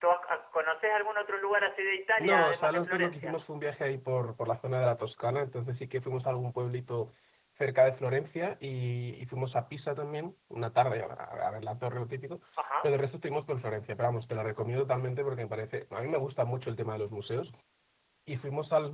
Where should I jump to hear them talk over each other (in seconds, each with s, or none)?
2.2 s